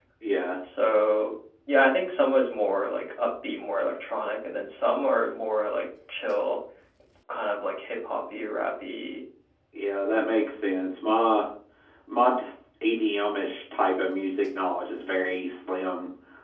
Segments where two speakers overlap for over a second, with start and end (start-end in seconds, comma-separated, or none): none